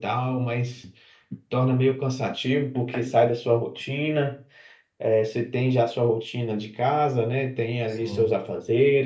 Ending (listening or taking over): listening